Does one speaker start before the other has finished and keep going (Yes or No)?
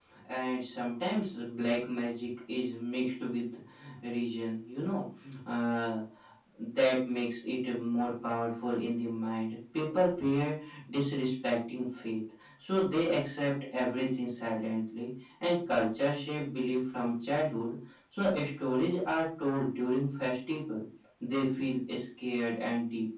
No